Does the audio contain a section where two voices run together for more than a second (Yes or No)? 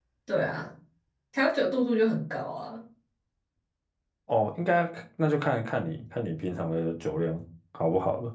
No